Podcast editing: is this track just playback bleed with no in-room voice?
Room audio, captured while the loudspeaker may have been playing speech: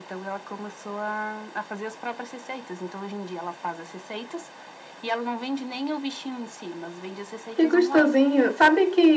No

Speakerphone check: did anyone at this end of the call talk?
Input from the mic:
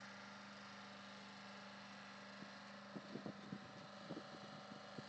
No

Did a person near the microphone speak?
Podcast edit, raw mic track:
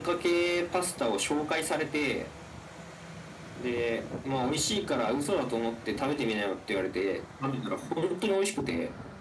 No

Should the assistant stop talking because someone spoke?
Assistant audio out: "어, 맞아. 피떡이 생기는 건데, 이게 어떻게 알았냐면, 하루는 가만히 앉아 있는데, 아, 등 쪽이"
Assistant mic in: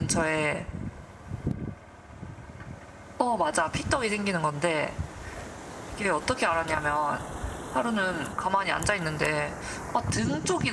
No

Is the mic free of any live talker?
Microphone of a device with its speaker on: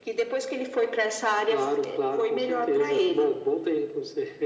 Yes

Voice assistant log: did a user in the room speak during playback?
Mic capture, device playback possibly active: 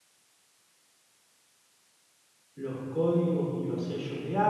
Yes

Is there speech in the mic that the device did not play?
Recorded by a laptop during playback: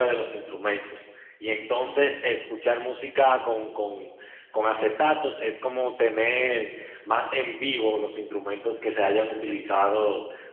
No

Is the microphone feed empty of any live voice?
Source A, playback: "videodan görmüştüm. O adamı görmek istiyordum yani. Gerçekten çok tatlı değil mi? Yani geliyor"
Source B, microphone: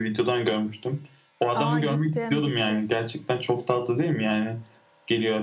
No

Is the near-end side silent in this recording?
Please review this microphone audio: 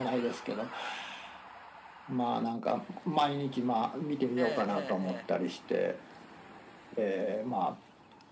No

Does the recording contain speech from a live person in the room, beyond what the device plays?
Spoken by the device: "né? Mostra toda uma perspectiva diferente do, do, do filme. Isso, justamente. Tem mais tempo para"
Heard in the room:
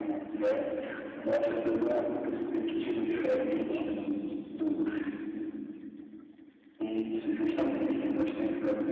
Yes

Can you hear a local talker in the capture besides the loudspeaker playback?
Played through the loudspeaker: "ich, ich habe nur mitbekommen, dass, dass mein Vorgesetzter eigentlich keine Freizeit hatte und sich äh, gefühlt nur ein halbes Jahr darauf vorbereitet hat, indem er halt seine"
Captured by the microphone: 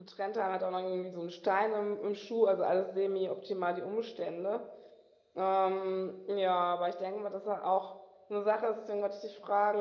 Yes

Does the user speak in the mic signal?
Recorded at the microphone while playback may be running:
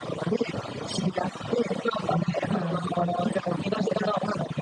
Yes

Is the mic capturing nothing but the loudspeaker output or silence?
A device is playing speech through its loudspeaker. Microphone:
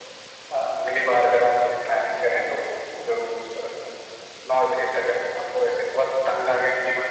Yes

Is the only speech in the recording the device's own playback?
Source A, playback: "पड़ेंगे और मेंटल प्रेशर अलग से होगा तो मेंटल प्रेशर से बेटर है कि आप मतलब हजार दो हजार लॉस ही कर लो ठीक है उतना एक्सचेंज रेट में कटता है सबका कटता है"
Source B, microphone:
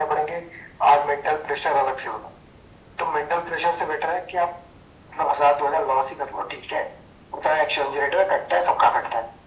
Yes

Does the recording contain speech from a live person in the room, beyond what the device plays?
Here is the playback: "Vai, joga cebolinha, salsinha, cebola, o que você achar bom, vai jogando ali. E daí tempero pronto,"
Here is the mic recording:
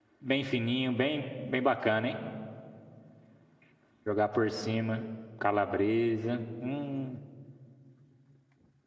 Yes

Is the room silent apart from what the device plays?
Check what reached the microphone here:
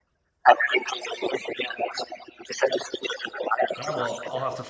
No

